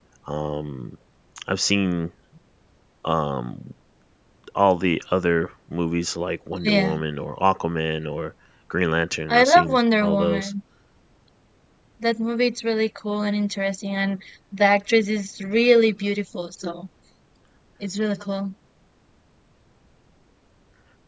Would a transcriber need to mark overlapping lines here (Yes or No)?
Yes